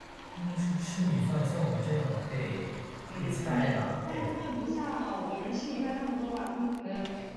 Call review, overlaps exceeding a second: present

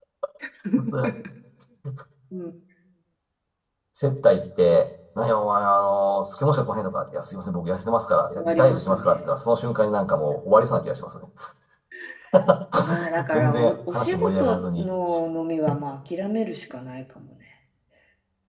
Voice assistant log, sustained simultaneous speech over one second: present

